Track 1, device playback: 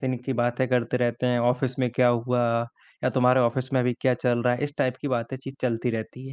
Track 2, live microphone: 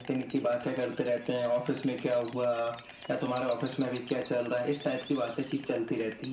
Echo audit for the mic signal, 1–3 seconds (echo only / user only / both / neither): echo only